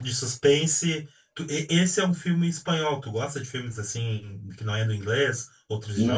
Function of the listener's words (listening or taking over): taking over